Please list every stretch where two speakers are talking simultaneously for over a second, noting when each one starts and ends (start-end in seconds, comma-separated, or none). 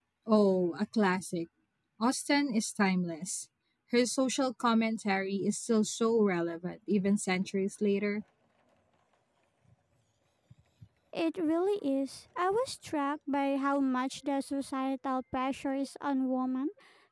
none